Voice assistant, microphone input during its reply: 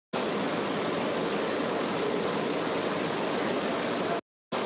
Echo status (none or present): none